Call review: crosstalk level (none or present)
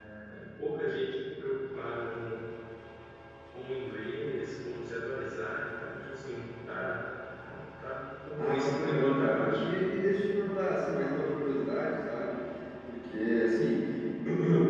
present